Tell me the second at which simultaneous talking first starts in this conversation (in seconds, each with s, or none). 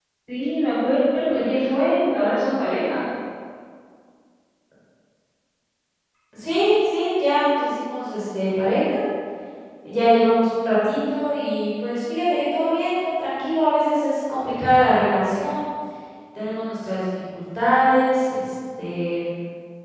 none